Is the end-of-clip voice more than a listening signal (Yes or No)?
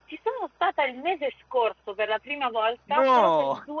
No